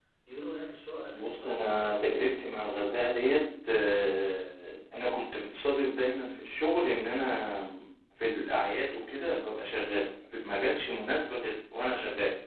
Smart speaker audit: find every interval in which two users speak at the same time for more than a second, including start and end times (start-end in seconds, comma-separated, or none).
1.1-2.7